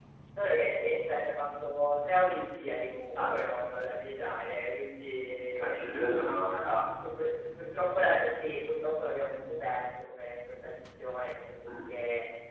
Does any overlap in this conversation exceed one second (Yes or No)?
No